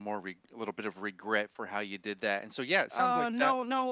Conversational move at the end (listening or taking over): taking over